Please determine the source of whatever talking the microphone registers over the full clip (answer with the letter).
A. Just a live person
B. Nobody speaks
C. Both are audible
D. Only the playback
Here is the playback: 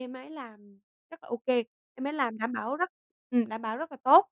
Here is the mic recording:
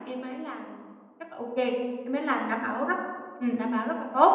D